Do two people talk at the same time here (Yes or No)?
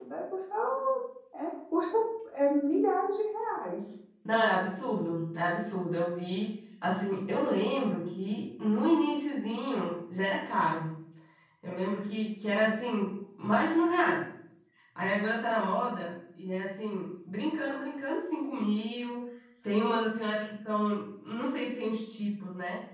No